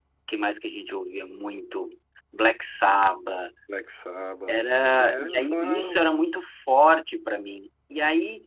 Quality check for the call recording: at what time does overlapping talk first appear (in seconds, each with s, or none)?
5.0 s